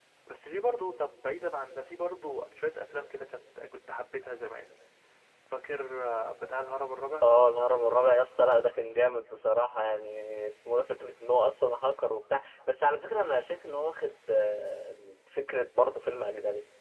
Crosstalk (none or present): none